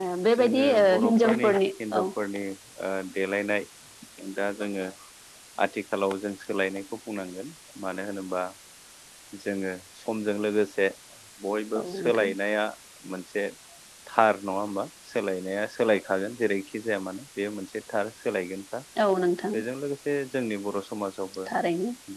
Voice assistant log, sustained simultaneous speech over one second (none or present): present